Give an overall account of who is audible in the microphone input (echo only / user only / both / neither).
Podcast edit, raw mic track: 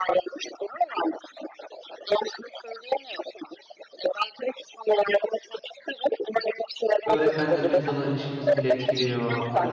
both